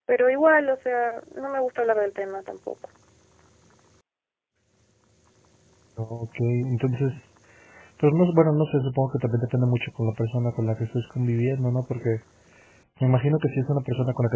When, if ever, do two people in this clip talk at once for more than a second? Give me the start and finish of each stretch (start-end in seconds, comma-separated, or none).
none